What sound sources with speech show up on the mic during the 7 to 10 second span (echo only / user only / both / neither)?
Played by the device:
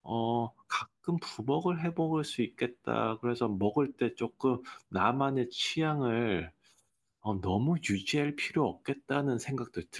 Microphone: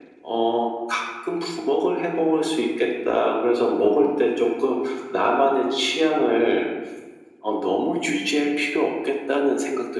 echo only